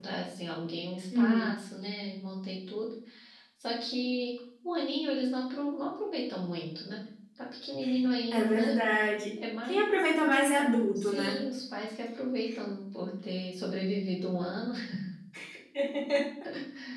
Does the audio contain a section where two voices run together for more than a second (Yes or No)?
No